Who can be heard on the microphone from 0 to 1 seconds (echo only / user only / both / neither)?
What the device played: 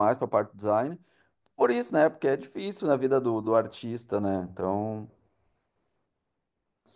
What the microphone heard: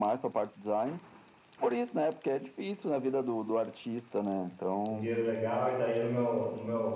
echo only